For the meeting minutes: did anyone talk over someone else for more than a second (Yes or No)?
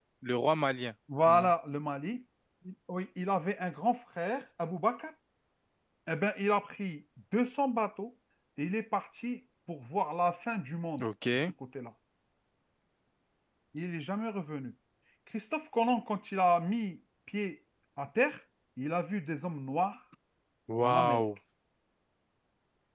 No